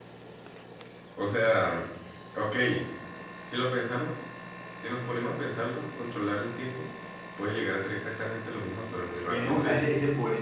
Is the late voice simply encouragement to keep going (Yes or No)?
No